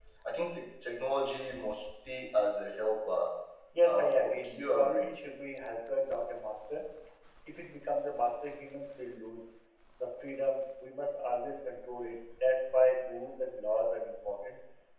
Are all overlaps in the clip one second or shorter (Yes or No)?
No